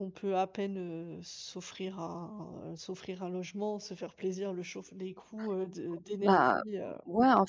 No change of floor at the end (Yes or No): No